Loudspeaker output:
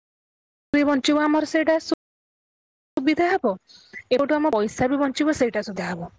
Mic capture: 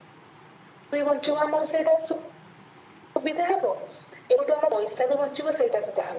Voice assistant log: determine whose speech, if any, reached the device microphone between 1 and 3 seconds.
echo only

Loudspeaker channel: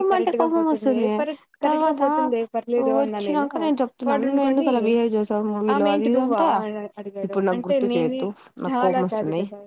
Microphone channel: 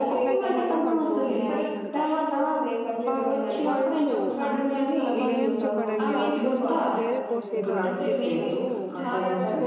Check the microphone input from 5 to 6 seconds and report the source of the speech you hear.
both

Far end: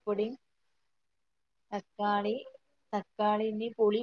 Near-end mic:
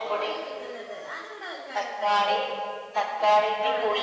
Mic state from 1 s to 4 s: both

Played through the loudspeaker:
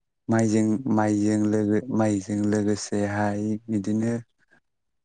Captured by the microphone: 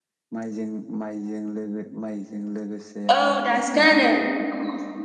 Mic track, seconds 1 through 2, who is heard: echo only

